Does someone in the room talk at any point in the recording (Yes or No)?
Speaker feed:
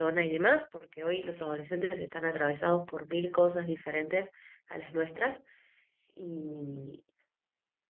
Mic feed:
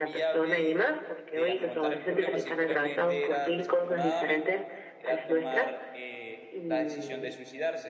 Yes